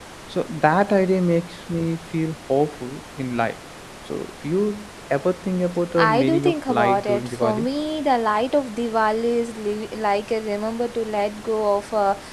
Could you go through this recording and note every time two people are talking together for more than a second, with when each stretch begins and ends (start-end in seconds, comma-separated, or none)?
6.0-7.7